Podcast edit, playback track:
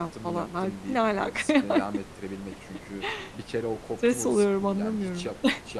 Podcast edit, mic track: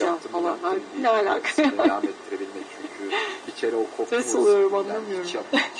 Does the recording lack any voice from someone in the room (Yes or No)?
Yes